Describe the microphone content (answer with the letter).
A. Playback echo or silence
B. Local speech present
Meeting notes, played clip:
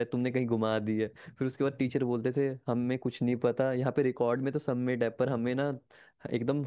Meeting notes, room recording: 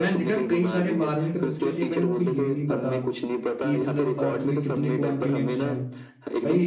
B